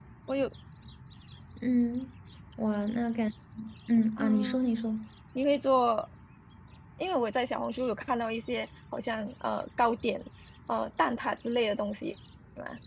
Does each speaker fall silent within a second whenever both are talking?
Yes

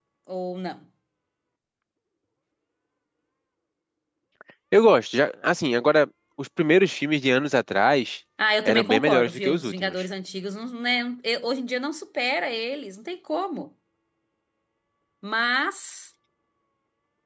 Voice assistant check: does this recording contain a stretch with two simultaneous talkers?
Yes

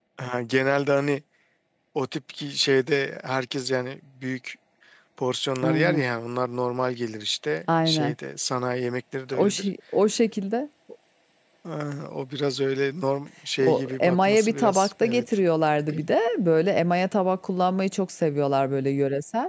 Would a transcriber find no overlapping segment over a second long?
No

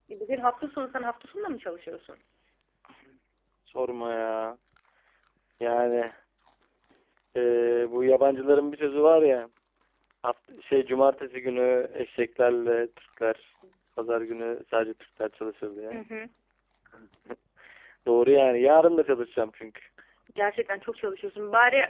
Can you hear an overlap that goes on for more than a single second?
No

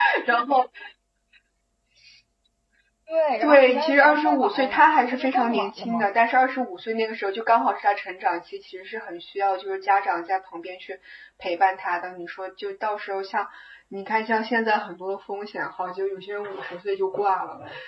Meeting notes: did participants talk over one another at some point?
Yes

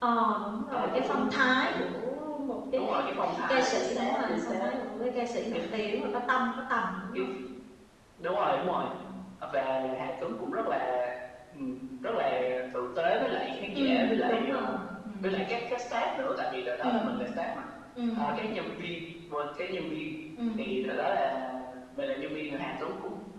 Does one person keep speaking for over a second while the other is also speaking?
Yes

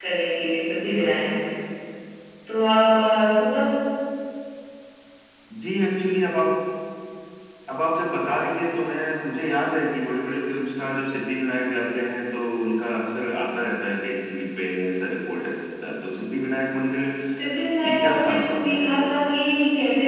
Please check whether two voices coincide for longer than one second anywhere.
Yes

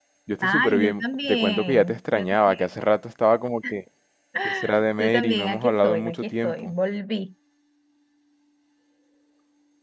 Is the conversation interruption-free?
No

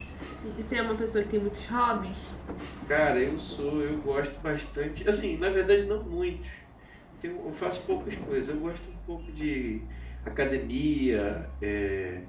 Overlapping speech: No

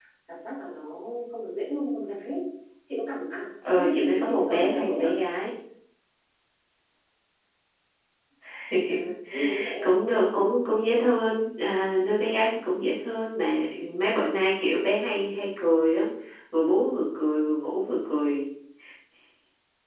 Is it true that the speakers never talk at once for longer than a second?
No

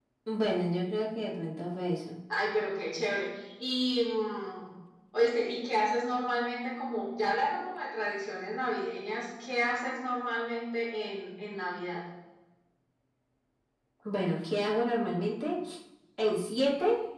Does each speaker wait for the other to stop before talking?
Yes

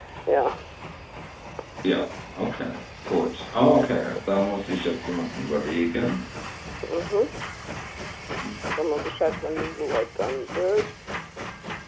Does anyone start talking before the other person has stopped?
No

